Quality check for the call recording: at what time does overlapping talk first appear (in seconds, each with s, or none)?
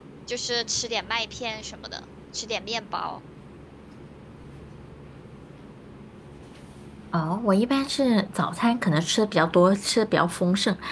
none